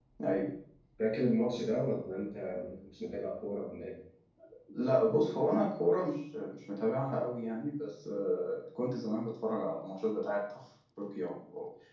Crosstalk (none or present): none